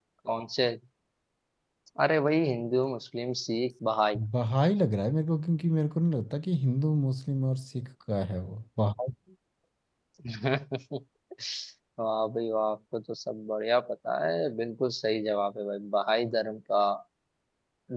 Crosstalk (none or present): none